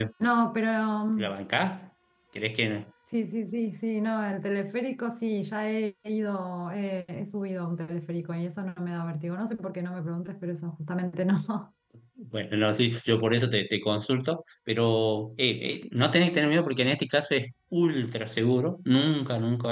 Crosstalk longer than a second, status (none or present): none